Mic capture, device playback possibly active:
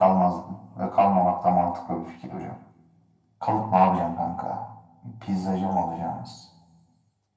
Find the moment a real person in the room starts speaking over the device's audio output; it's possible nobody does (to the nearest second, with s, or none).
none